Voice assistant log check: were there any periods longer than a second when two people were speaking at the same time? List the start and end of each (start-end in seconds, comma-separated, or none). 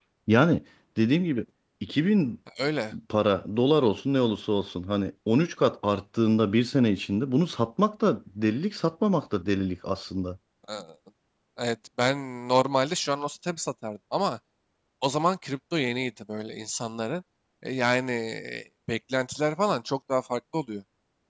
none